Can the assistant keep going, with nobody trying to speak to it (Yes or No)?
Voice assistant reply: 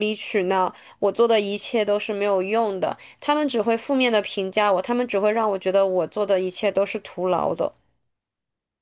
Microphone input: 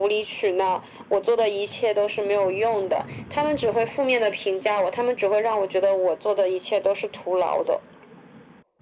Yes